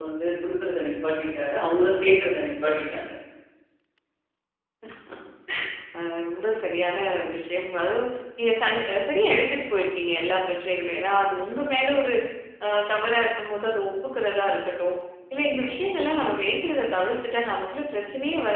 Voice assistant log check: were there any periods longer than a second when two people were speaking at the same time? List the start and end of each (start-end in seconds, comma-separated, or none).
none